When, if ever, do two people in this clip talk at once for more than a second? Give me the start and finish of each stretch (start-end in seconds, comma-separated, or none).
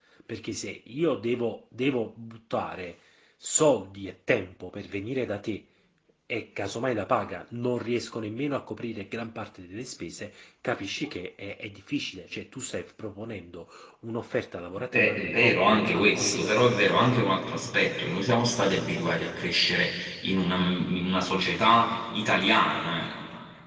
14.9-17.3